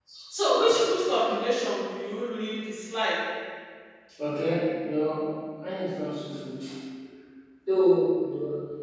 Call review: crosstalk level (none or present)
none